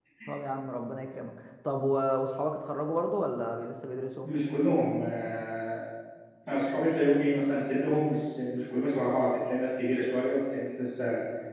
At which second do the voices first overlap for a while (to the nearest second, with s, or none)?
none